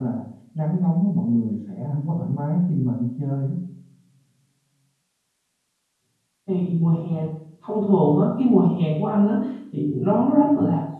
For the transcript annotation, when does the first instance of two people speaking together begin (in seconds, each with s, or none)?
none